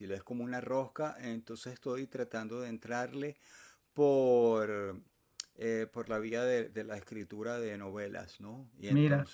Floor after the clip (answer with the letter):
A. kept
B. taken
A